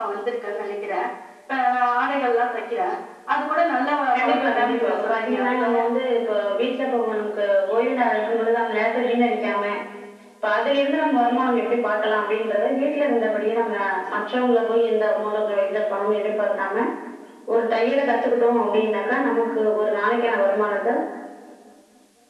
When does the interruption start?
4.2 s

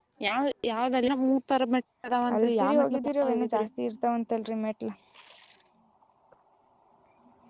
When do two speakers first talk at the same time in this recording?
2.3 s

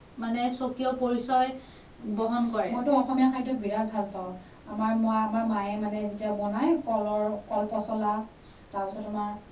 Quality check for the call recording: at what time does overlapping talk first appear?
none

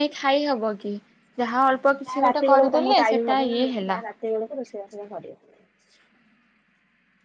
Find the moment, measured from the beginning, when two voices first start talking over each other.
2.1 s

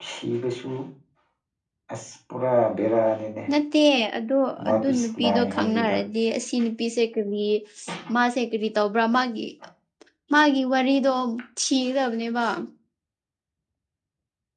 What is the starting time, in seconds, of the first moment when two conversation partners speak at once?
4.6 s

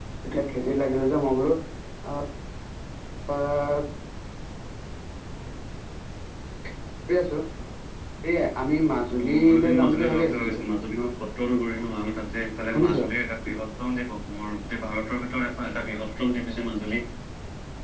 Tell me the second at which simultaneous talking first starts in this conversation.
9.3 s

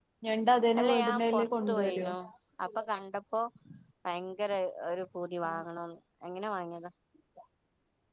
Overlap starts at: 0.8 s

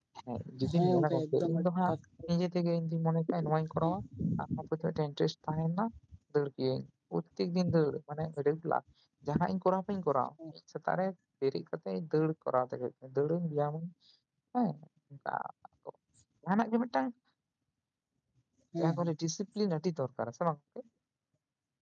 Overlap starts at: 0.7 s

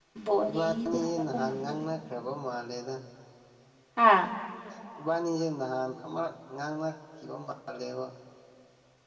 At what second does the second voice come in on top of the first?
0.5 s

